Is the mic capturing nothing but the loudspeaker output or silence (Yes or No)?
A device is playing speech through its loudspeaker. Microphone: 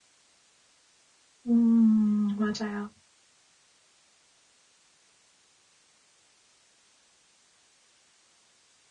No